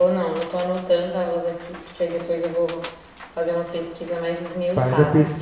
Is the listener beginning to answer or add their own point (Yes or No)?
Yes